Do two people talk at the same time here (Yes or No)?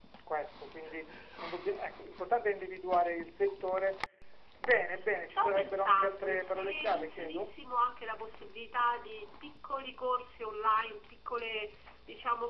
Yes